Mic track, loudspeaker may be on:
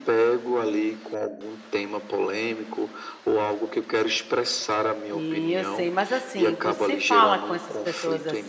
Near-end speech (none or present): present